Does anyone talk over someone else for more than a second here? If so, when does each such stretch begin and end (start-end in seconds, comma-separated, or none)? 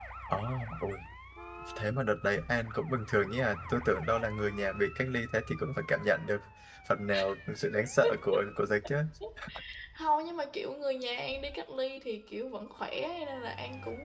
none